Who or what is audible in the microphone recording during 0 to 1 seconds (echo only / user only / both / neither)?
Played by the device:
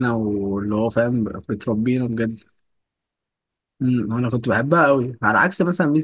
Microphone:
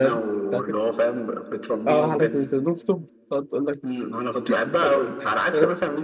both